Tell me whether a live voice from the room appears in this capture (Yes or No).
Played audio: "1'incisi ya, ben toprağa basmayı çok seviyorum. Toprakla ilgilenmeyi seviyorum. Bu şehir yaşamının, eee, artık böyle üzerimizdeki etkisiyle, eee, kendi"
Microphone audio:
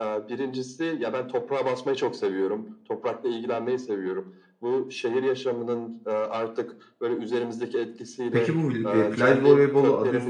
Yes